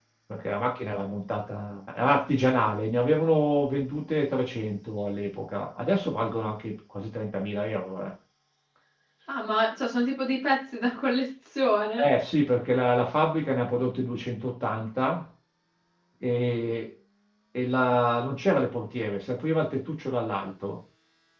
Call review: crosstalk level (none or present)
none